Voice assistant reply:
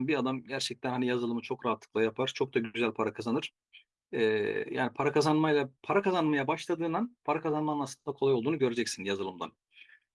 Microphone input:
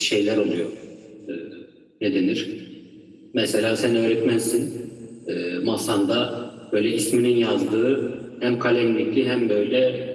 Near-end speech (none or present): present